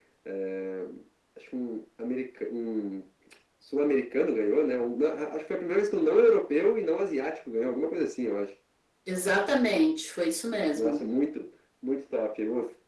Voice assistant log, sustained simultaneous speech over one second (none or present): none